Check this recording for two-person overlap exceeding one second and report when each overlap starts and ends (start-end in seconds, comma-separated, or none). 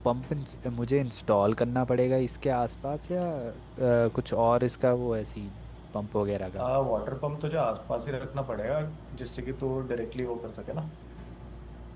none